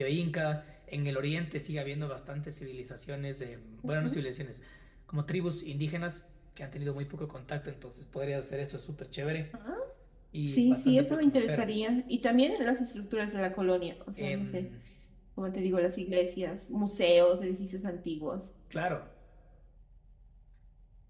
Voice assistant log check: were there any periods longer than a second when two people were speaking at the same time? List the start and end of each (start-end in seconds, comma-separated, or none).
10.4-11.7